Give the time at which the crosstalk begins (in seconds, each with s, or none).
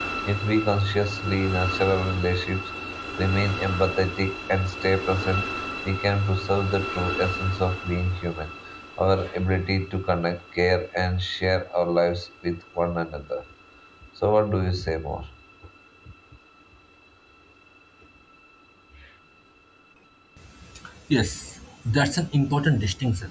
none